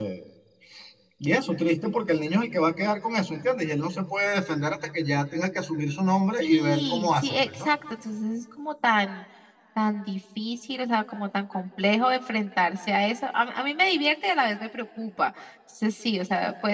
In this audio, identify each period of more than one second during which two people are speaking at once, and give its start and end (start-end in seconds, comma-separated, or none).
6.4-7.7